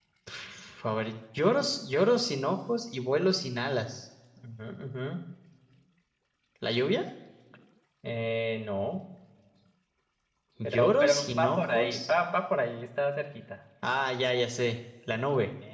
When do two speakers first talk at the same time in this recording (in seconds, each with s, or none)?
10.6 s